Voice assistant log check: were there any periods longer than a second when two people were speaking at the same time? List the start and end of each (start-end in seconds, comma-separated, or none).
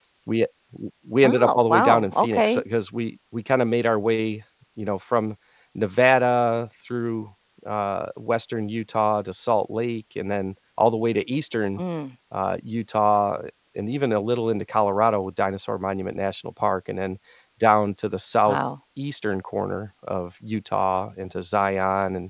1.2-2.6